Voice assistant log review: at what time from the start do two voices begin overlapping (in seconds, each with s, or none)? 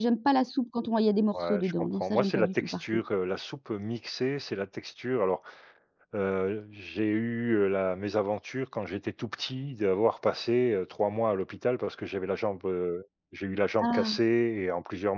1.4 s